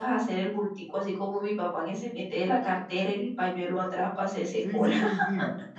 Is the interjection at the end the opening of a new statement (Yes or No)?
Yes